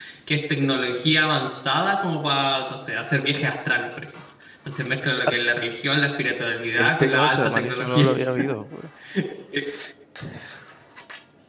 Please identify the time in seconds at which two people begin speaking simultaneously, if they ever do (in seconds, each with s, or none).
6.8 s